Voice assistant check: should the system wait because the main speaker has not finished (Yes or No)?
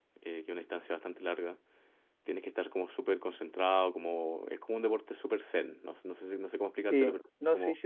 No